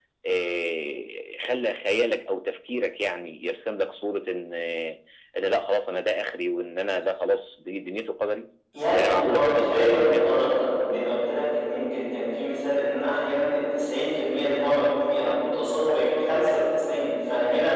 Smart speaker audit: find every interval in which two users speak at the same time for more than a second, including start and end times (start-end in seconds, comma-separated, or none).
8.9-10.4